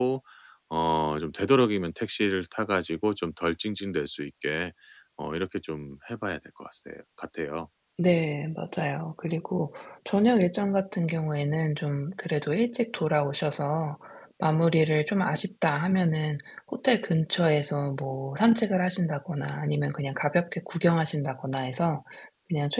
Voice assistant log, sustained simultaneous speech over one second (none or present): none